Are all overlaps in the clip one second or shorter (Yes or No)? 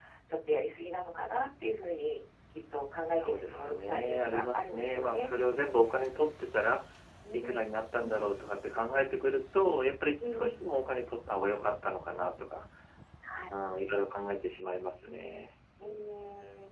No